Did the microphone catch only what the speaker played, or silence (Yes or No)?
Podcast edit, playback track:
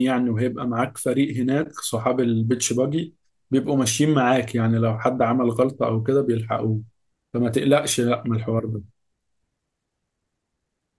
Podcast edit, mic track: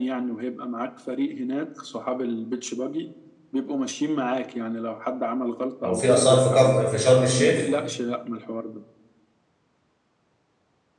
No